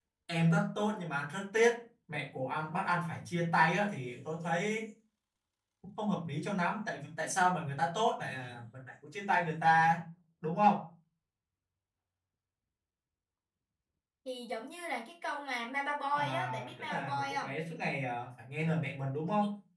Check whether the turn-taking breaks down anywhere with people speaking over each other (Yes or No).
Yes